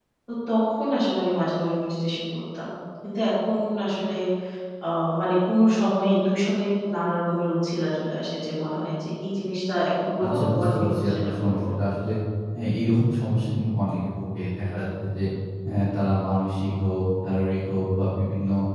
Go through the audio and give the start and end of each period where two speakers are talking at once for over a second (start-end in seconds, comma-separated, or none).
10.2-11.6